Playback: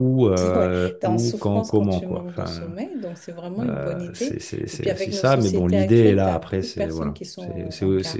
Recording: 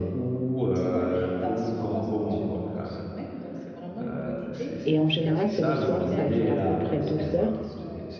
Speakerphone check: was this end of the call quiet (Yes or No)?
No